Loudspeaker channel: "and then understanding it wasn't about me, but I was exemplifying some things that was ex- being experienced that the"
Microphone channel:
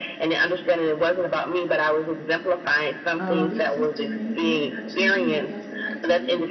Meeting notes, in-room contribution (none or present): present